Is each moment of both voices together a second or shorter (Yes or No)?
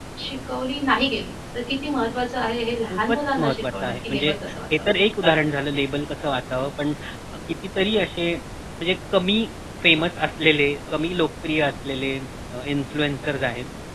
No